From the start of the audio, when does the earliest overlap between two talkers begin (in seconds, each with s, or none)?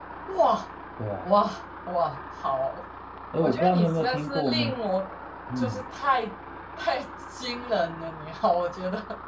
3.4 s